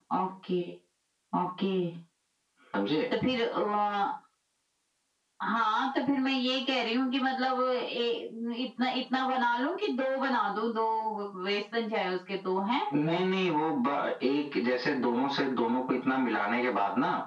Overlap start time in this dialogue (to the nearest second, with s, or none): none